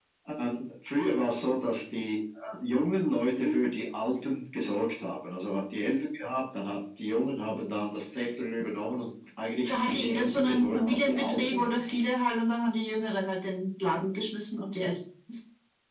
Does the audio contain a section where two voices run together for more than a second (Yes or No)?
Yes